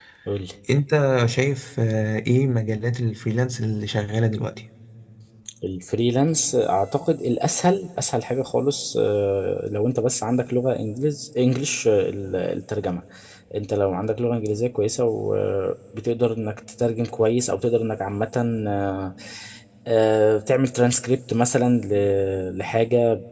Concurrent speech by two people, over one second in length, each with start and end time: none

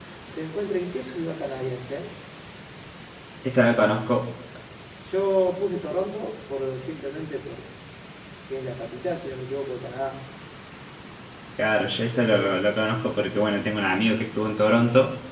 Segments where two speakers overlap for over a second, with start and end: none

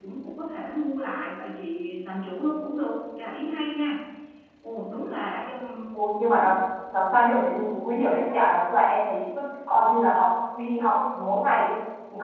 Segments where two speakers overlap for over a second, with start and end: none

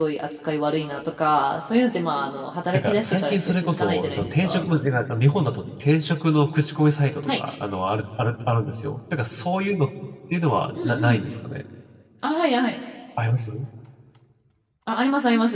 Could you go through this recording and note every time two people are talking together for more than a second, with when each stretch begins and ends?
2.7-4.7

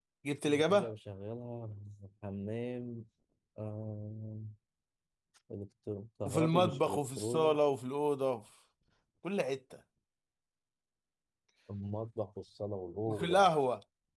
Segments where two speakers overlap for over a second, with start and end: 6.2-7.6

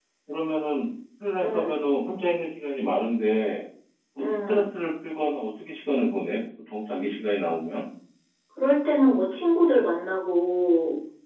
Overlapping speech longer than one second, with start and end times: none

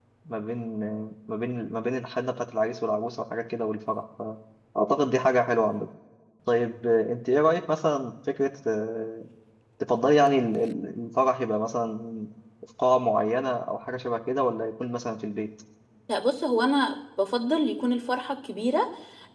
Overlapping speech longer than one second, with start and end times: none

